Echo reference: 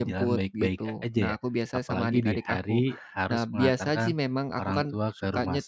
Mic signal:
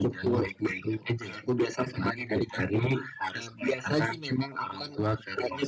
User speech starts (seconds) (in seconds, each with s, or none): none